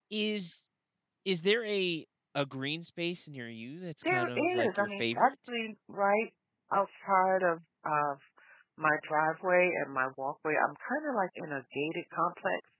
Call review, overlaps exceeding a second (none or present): present